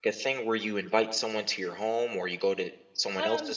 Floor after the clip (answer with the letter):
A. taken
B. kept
A